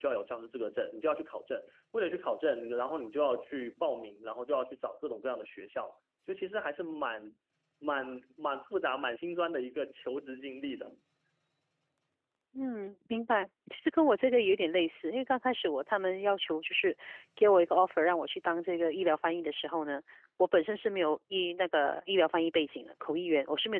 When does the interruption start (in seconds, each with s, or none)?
none